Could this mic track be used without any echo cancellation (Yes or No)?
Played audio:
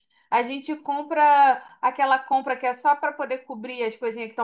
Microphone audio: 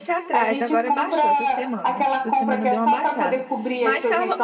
No